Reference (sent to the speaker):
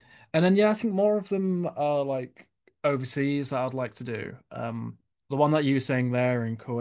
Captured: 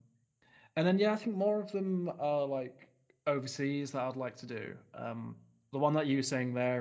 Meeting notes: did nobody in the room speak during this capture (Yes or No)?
Yes